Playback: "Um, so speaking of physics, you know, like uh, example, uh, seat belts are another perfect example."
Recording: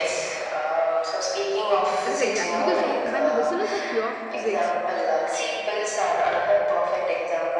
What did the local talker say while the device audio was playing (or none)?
That is exactly because you know, when the whistle is of pure physics,